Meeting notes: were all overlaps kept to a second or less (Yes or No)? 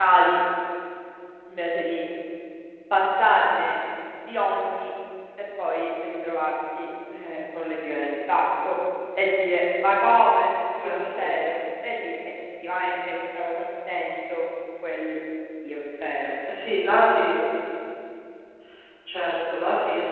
Yes